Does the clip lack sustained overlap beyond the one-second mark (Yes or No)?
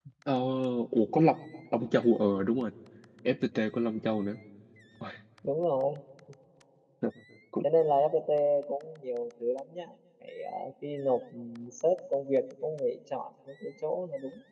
Yes